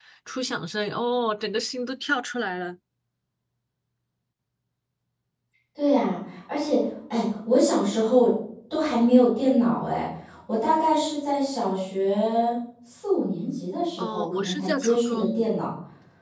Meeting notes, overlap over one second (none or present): present